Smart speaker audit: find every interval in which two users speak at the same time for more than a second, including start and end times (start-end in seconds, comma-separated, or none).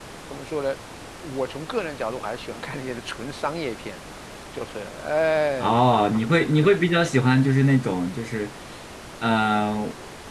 none